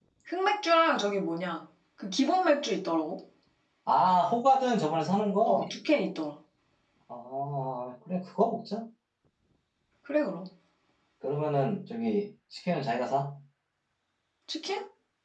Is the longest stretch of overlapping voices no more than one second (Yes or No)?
Yes